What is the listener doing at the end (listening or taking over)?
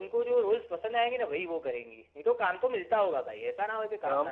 taking over